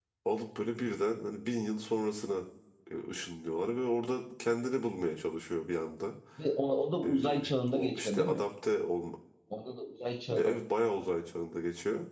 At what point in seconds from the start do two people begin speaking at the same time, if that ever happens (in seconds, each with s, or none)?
7.0 s